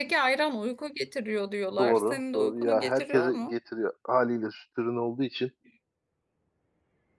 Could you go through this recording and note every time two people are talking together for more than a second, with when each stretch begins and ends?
1.8-3.5

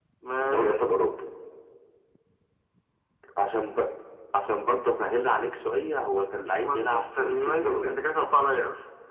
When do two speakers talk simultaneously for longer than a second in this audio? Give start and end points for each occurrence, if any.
6.6-8.0

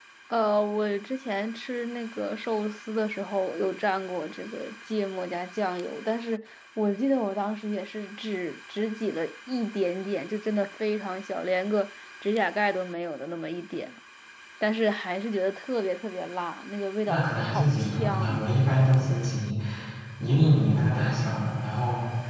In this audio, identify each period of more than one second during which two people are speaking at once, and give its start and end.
17.1-18.5

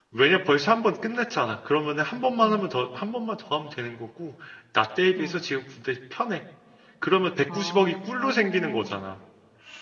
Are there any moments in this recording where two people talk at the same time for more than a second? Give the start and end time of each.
7.5-9.0

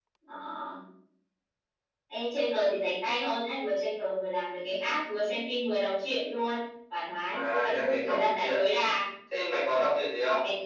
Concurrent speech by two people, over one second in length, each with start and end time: 7.3-8.5

